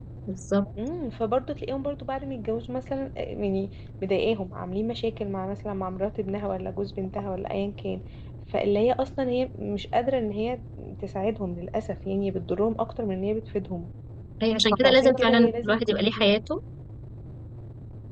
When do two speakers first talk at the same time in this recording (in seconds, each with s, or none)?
14.8 s